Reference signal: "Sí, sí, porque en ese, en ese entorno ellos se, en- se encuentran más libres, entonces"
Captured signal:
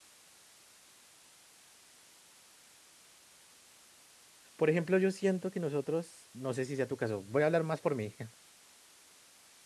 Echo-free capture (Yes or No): Yes